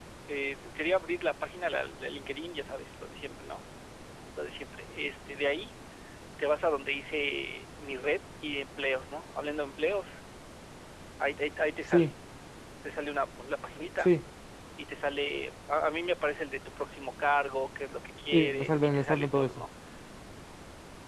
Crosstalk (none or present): present